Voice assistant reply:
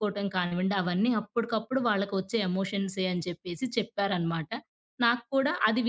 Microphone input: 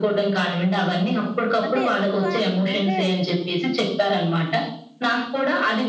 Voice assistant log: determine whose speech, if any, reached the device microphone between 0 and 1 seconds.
echo only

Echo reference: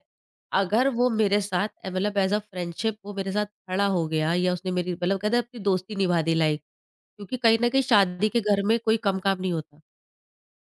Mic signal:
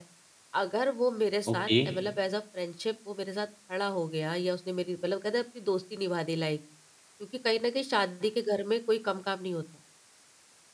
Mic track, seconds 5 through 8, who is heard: echo only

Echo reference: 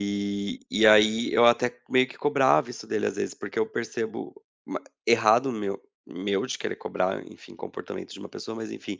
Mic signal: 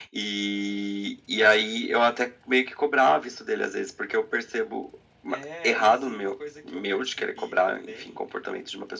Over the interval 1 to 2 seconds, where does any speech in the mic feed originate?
echo only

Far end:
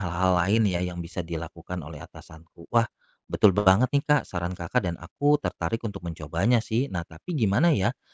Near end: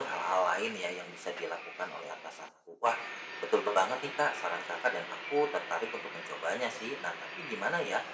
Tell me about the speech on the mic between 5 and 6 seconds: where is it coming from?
echo only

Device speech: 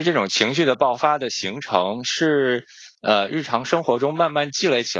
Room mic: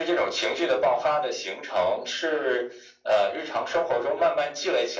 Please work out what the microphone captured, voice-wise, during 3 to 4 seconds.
echo only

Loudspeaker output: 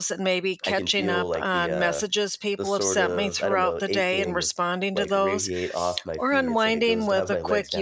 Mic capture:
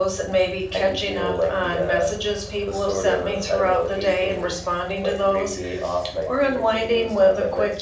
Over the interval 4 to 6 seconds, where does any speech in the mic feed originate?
echo only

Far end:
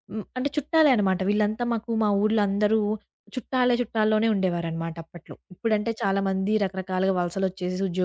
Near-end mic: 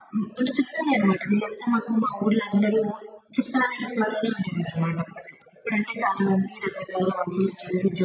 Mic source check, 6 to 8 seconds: echo only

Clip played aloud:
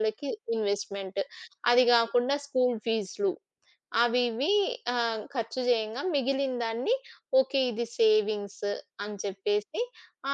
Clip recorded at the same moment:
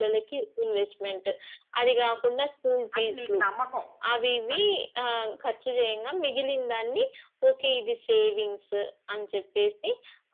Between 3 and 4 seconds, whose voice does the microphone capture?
both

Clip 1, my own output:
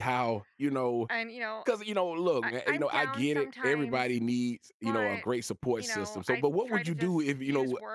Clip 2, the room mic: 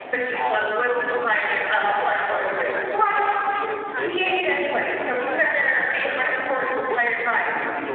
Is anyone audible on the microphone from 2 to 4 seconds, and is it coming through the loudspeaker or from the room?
both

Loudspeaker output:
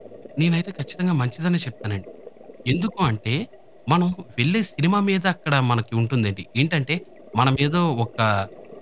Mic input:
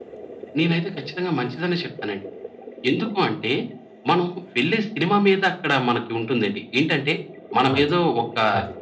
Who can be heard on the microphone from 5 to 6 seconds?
echo only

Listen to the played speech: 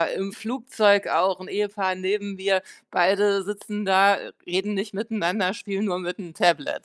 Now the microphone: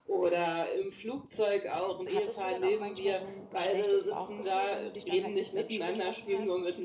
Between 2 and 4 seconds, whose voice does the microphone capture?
both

